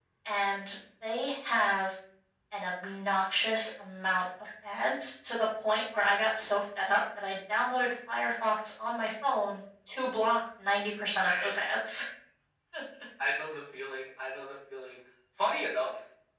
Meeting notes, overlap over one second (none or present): none